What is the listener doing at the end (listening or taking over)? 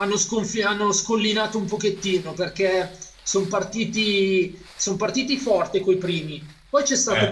listening